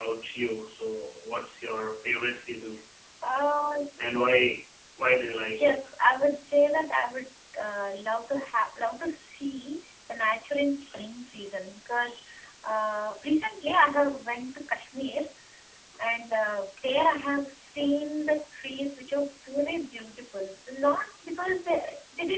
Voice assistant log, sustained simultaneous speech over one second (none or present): none